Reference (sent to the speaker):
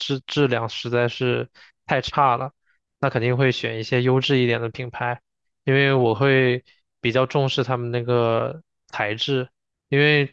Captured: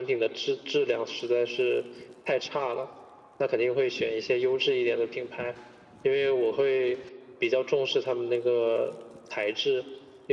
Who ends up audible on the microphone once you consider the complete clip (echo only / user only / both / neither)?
echo only